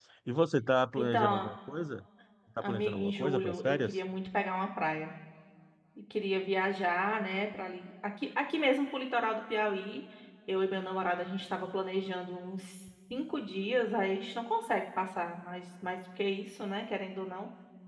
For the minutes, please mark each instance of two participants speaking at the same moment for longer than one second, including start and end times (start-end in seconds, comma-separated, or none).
2.6-4.0